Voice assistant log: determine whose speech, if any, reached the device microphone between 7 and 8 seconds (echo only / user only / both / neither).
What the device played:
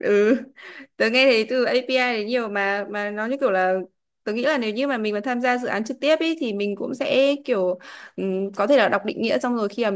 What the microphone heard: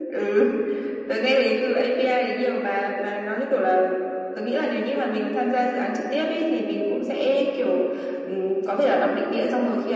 echo only